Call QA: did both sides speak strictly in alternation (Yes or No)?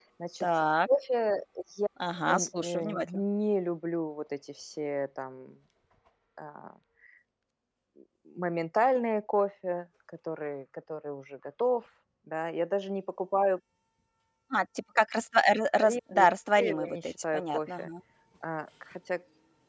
No